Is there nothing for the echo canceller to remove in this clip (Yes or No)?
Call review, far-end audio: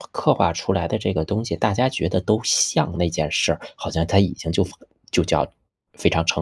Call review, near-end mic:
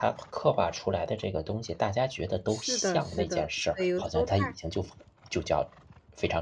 No